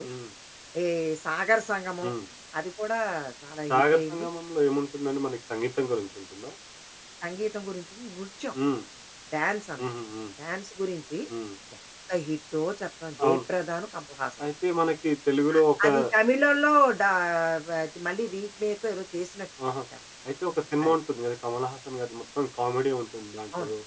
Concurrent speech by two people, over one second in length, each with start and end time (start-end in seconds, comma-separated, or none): none